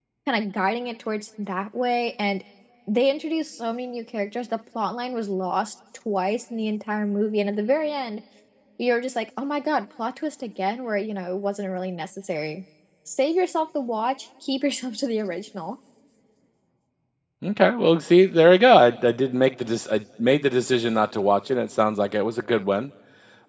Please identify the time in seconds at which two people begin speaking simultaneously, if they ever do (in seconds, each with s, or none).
none